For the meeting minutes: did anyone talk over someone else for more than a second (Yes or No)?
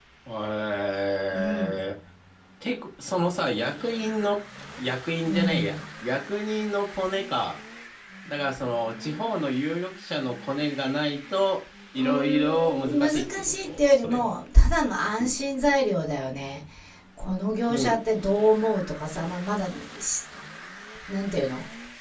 Yes